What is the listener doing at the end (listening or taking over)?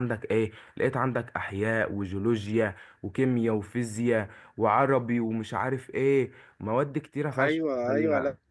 taking over